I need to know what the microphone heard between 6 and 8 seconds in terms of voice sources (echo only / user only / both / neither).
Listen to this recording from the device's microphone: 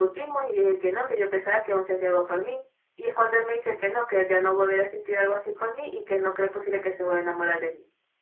user only